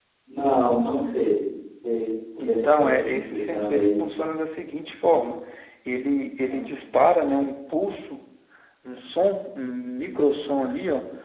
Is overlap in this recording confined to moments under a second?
No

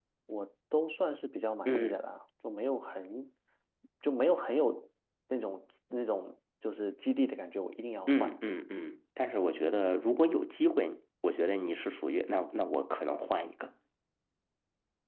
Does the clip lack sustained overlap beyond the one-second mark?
Yes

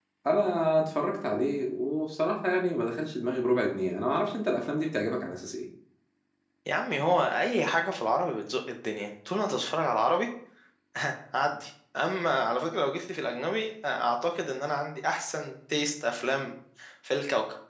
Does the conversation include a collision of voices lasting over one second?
No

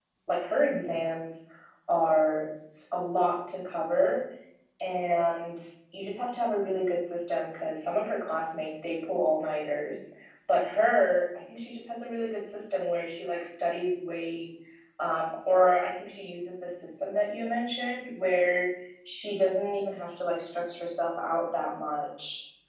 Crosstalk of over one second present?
No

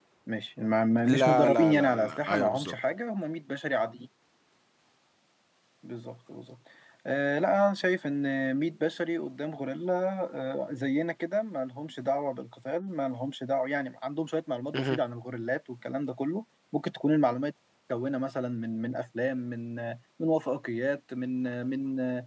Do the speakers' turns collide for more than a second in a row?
Yes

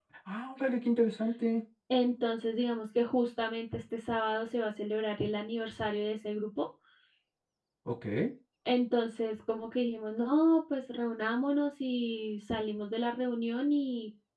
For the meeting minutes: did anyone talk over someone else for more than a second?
No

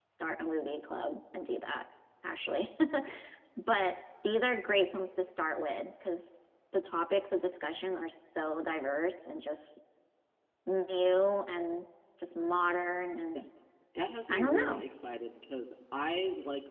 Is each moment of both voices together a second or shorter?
Yes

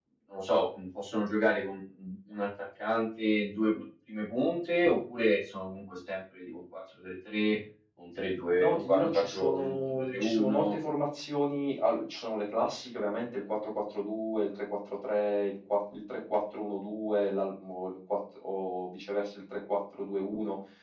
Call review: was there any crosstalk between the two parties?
Yes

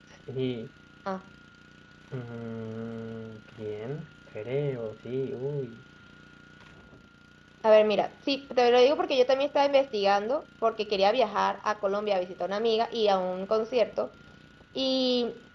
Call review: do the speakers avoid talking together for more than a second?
Yes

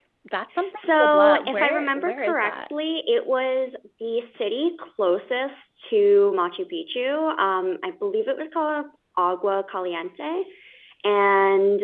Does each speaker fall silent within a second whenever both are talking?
No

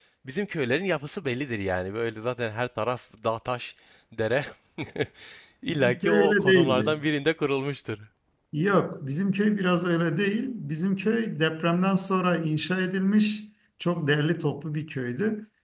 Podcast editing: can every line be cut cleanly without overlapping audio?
No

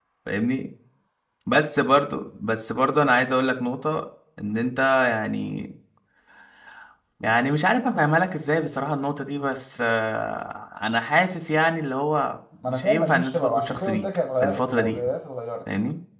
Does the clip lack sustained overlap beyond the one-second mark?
No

